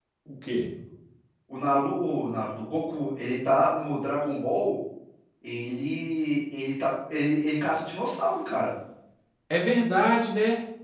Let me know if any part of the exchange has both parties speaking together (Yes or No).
No